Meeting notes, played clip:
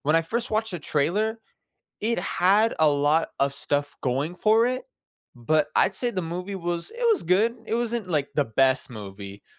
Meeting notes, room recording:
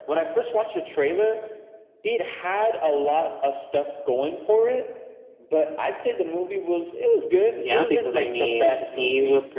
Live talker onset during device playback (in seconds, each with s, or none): 7.6 s